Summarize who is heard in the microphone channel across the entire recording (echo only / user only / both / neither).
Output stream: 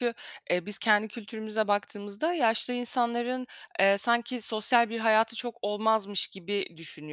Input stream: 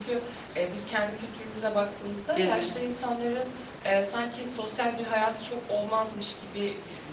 both